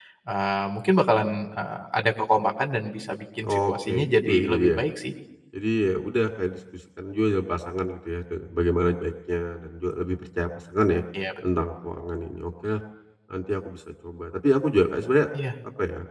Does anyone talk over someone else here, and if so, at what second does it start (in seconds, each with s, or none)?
3.4 s